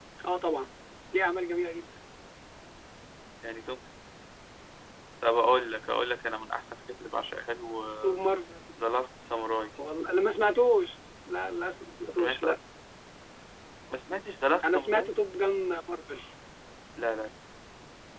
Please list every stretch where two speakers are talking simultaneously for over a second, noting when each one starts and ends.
none

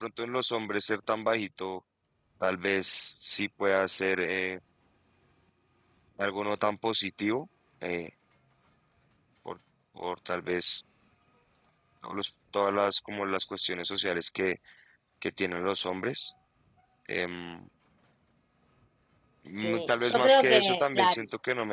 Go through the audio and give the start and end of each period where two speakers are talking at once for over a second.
19.6-21.2

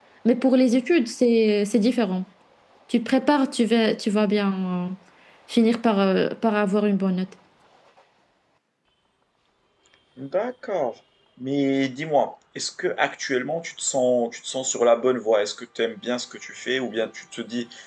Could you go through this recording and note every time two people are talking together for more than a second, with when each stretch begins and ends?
none

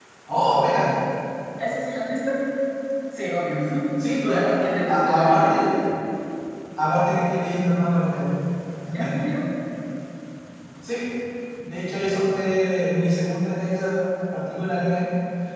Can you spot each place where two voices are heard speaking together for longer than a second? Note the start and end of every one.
4.2-5.6

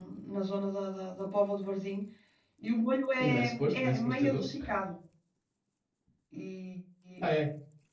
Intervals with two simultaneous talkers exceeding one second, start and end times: 3.2-4.5

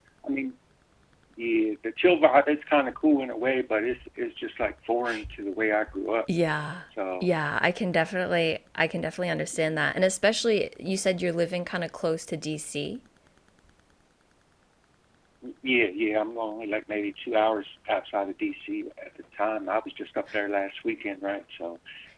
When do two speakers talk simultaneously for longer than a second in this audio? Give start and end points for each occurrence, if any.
none

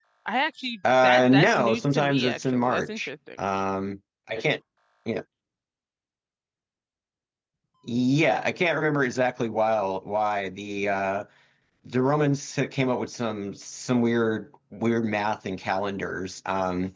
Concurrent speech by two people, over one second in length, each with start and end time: 1.0-3.1

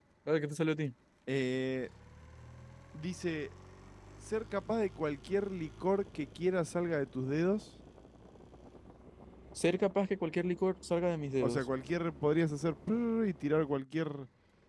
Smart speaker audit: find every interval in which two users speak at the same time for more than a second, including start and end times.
none

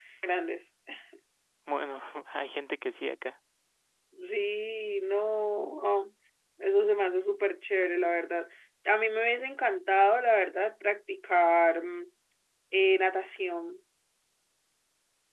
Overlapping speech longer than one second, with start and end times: none

